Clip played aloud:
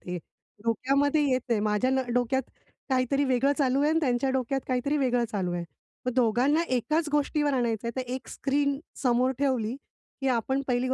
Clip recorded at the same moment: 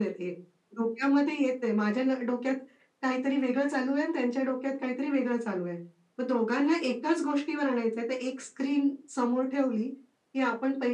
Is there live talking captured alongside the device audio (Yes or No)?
No